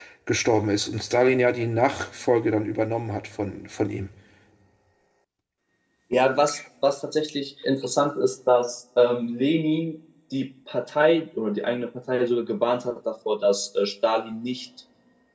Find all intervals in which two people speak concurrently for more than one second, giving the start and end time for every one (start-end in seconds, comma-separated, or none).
none